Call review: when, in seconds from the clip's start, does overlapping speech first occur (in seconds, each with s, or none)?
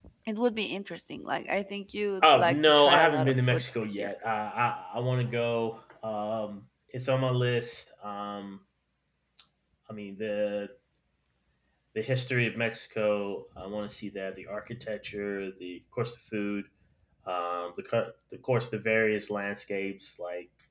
2.2 s